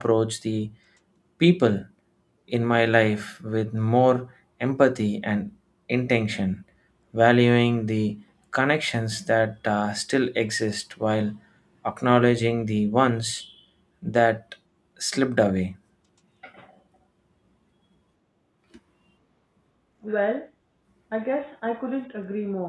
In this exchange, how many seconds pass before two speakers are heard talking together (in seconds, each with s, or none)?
none